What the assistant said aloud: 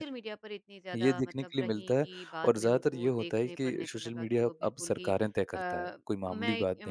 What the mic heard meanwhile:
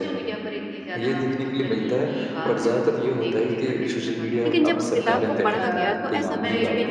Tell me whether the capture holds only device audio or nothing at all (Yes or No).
No